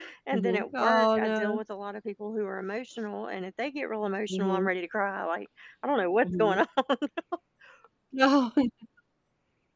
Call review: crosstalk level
present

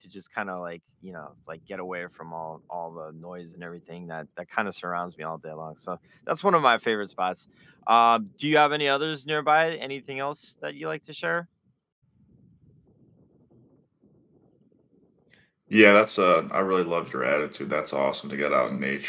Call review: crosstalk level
none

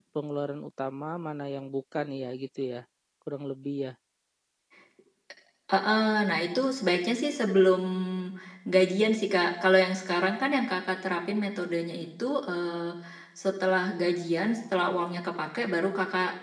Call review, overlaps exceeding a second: none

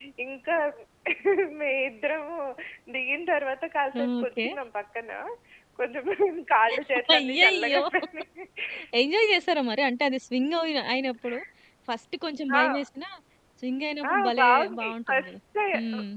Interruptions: present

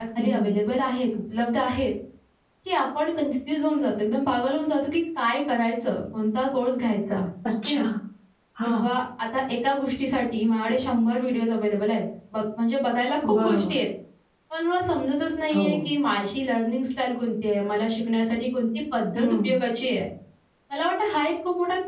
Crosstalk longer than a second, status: none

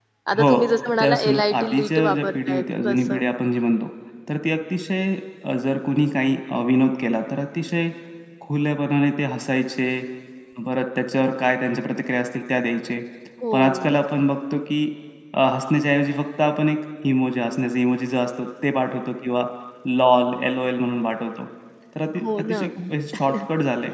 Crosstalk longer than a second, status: present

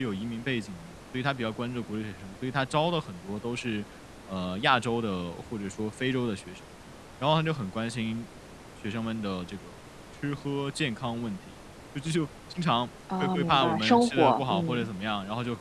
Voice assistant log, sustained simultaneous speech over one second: present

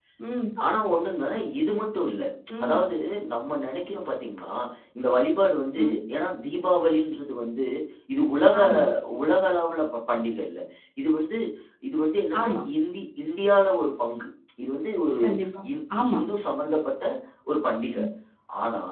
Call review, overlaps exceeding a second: none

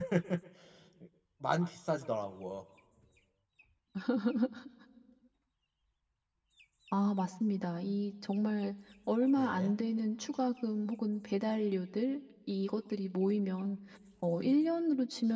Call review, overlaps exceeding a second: none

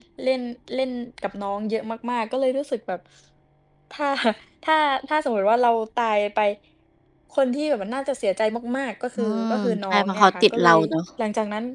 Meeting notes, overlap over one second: present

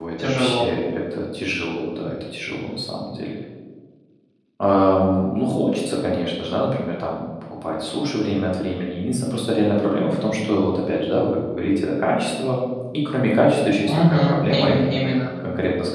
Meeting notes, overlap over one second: present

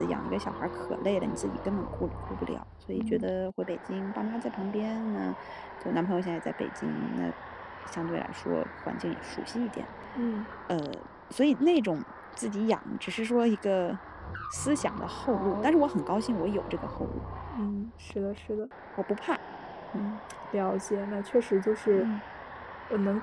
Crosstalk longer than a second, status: none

